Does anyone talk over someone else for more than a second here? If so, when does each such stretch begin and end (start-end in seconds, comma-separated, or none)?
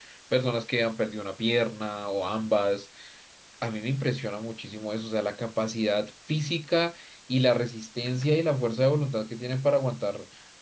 none